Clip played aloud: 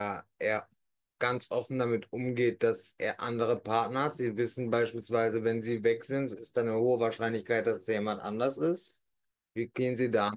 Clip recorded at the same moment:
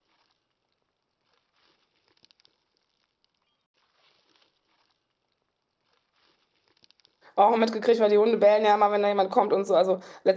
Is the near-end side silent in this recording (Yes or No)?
No